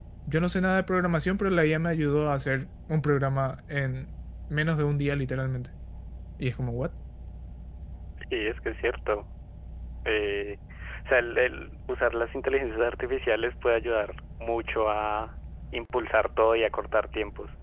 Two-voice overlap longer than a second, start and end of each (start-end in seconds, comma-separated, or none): none